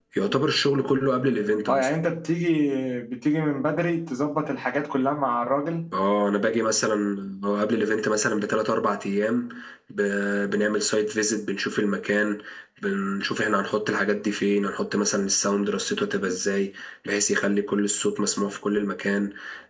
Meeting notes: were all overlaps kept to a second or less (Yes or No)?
Yes